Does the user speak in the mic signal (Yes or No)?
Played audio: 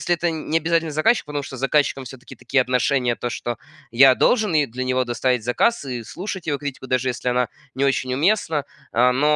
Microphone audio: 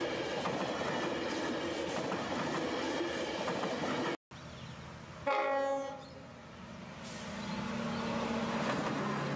No